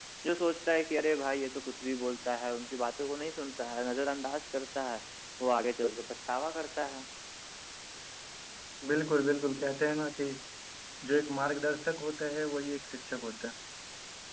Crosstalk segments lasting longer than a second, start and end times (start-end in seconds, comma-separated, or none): none